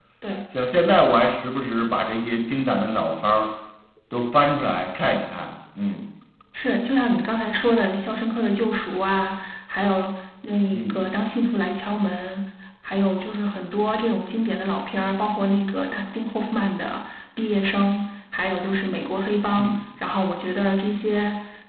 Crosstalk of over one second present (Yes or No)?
No